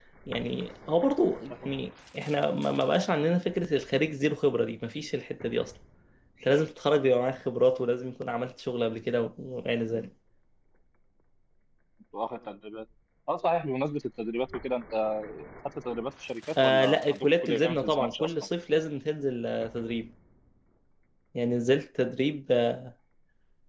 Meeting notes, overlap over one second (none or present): present